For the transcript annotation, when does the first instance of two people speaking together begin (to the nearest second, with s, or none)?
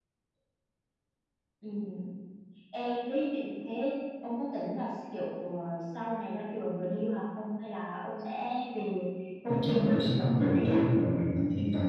9 s